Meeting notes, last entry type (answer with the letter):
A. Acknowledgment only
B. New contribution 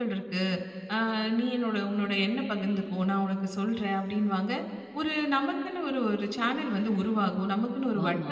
A